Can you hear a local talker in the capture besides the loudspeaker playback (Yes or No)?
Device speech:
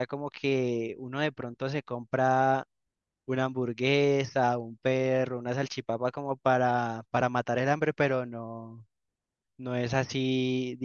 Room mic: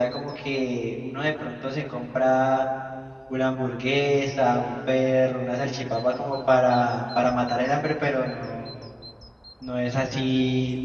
No